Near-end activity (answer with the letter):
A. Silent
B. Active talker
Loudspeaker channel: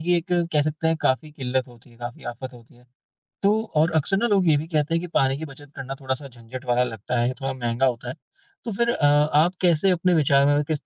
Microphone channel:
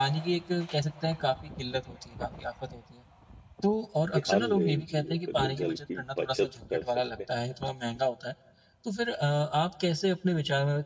B